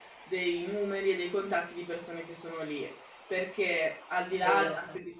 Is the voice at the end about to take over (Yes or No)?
No